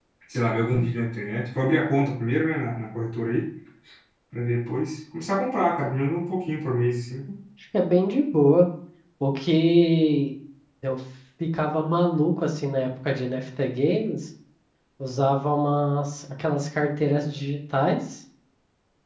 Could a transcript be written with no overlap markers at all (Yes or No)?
Yes